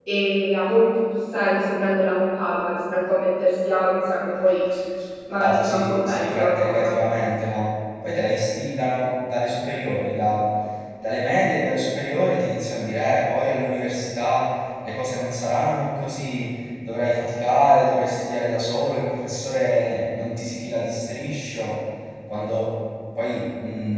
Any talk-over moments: Yes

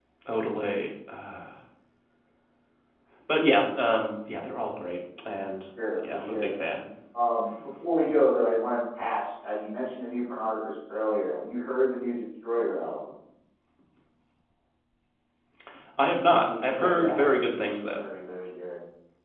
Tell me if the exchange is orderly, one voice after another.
No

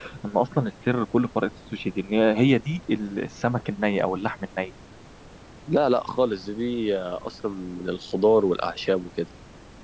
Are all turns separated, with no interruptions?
Yes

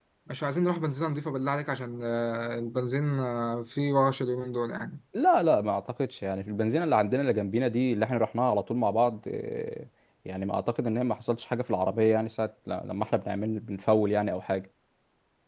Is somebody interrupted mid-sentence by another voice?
No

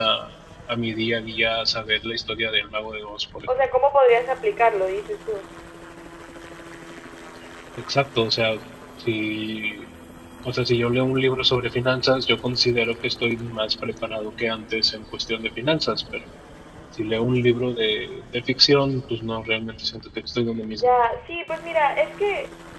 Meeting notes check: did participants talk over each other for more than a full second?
No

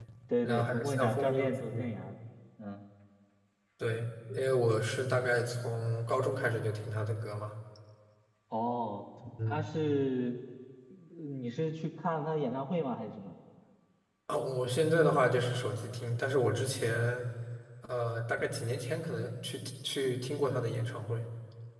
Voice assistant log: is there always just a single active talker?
No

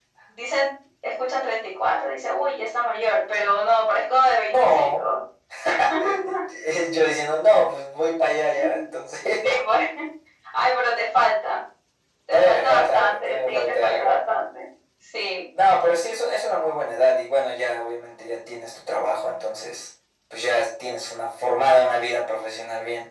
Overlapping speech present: Yes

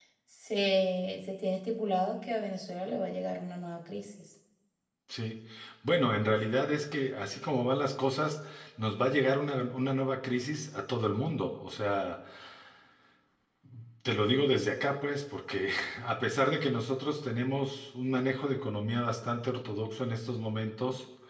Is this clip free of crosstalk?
Yes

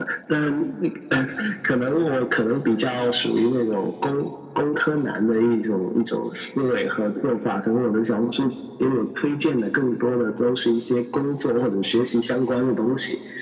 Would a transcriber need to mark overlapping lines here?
No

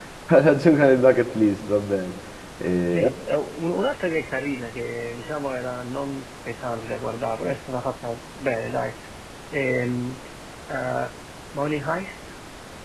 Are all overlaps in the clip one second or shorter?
Yes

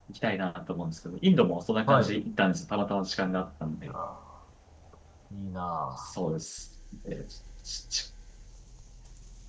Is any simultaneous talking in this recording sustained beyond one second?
No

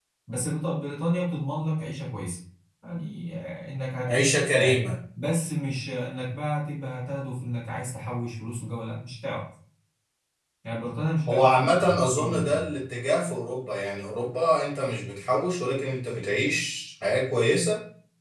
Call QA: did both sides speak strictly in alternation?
No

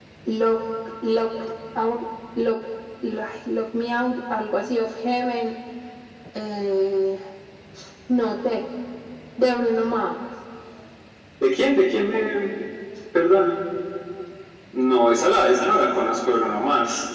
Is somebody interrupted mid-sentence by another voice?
No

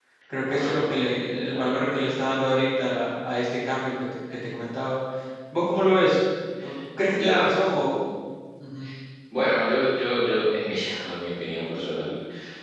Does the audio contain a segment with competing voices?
Yes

